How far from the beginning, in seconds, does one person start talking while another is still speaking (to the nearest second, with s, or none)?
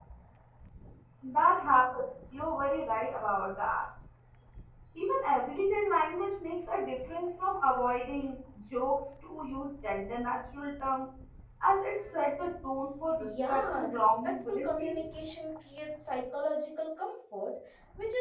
13 s